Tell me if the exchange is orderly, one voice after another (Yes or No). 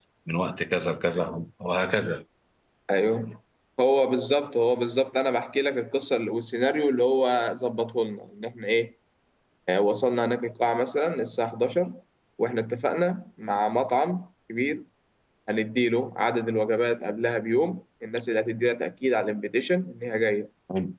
Yes